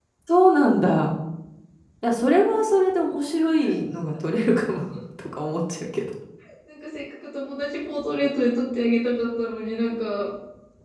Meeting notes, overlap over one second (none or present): none